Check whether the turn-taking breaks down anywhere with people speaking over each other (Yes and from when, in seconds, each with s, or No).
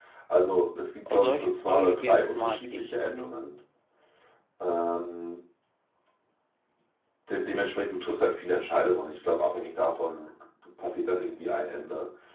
Yes, from 1.1 s